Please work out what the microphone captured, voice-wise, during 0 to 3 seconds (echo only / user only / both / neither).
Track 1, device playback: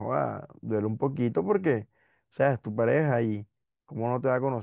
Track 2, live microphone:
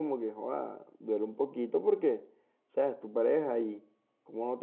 echo only